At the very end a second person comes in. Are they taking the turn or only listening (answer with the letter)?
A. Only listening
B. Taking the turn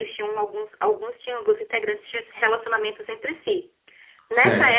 A